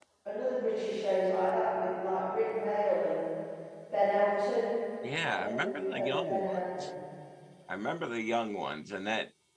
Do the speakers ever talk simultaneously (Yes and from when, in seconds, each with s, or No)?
Yes, from 5.3 s